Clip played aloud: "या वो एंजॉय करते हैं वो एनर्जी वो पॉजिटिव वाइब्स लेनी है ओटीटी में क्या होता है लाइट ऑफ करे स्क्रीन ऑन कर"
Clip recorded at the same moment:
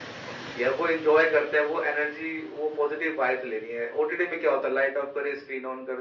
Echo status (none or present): present